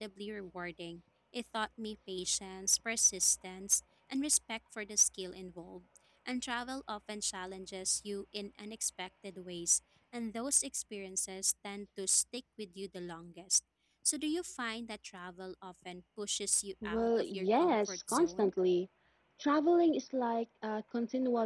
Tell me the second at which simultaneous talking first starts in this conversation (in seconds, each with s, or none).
16.8 s